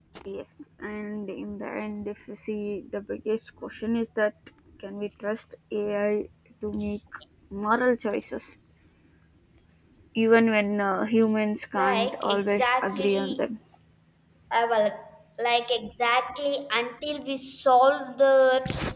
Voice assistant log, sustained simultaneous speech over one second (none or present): present